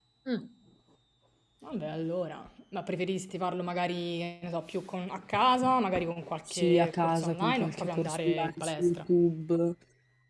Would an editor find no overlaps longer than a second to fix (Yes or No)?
No